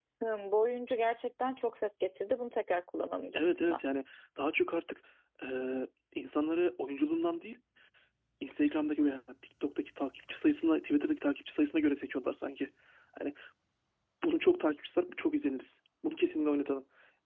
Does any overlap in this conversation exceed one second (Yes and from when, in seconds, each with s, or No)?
No